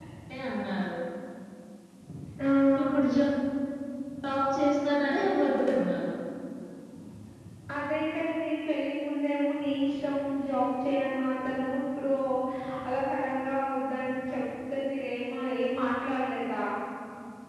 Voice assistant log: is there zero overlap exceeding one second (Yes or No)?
Yes